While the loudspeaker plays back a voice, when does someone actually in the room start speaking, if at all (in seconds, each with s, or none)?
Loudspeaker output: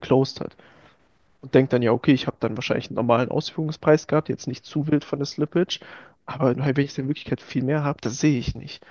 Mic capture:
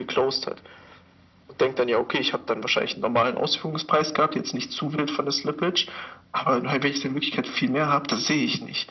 none